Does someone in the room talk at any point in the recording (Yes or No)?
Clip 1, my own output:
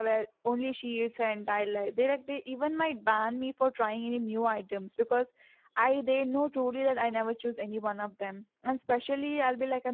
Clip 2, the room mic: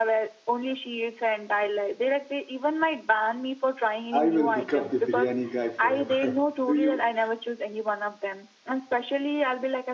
Yes